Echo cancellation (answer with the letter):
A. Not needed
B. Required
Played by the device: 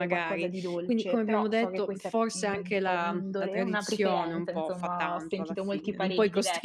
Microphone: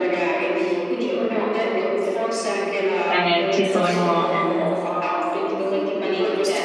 B